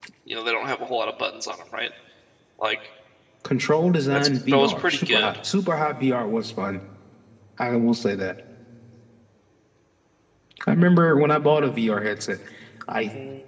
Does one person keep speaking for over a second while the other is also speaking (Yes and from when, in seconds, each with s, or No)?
Yes, from 4.1 s